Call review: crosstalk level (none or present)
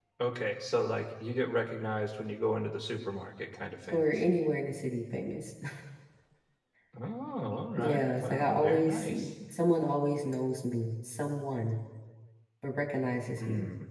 present